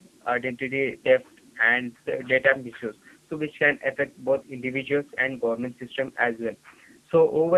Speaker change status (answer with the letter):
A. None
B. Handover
A